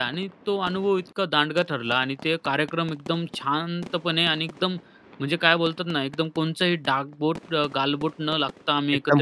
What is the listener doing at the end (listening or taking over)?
taking over